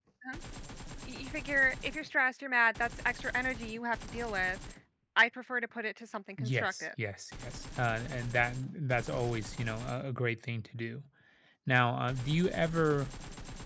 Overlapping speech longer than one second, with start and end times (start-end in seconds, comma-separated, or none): none